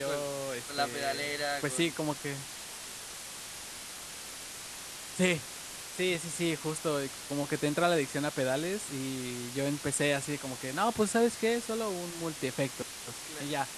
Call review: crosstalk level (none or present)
present